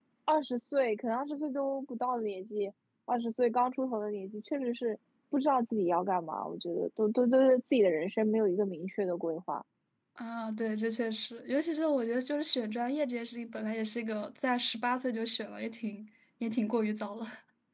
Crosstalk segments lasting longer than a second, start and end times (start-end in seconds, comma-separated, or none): none